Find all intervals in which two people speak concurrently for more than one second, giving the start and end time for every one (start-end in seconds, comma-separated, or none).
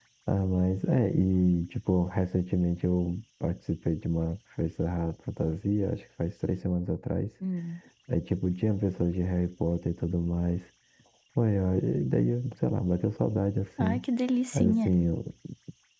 none